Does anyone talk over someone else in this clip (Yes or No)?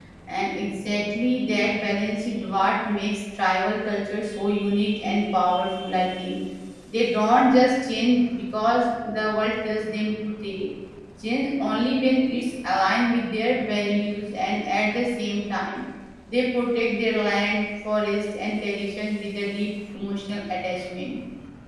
No